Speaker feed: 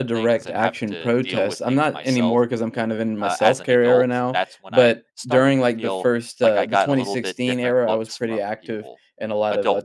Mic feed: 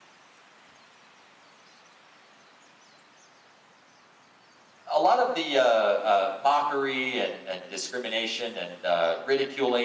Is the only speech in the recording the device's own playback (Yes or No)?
No